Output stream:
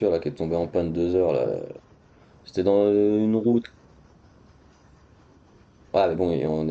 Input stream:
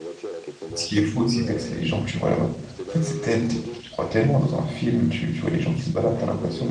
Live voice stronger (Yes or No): Yes